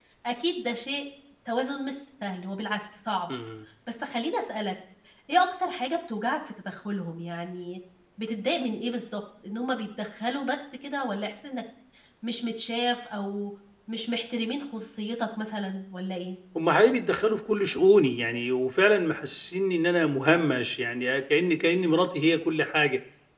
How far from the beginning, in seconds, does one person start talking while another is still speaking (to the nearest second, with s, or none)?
none